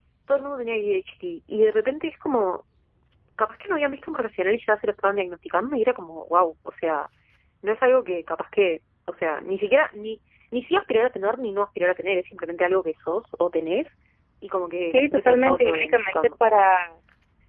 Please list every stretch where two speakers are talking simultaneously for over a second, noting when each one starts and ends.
14.9-16.1

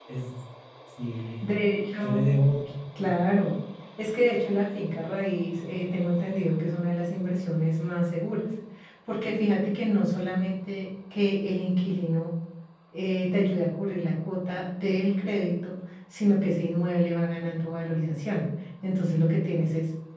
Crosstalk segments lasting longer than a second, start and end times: none

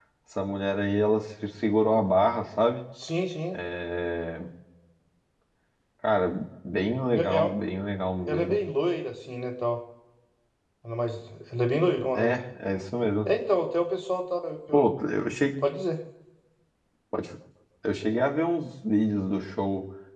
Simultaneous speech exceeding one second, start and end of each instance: none

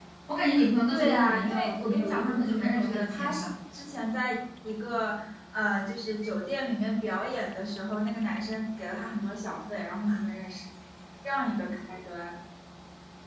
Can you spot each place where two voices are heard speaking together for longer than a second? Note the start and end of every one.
0.9-3.5

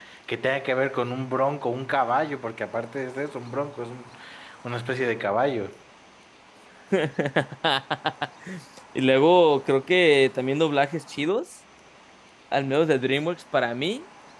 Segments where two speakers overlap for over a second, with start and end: none

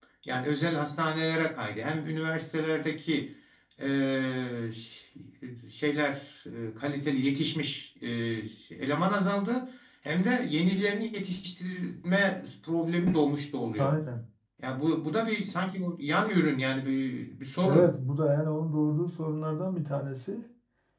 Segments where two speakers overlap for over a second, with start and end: none

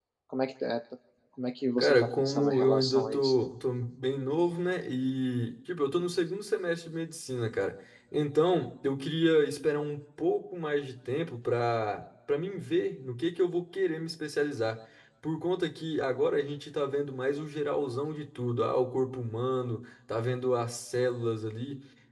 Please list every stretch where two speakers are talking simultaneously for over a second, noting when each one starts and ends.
1.8-3.4

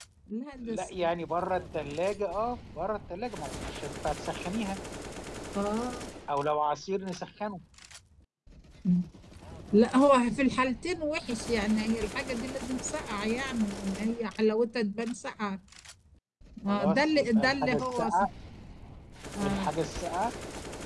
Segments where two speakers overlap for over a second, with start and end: 16.7-18.2

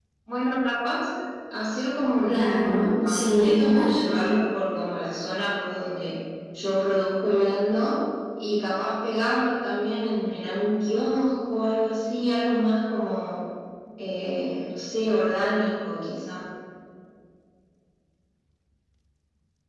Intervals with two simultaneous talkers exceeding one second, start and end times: 2.3-3.9

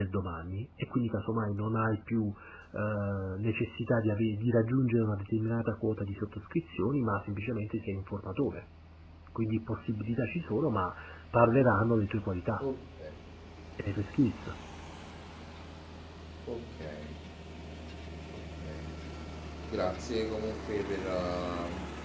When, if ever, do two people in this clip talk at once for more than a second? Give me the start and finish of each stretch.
none

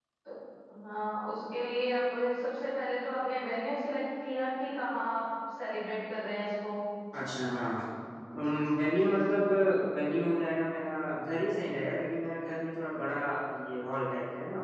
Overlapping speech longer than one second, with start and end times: none

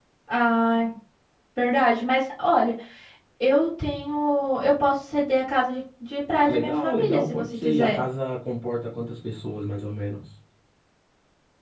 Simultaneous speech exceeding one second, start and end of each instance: 6.4-8.0

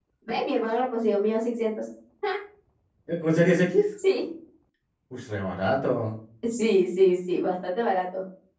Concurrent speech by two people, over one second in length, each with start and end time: none

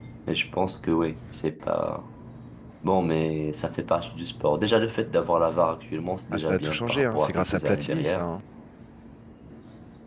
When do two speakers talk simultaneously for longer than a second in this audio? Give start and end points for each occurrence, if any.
6.3-8.2

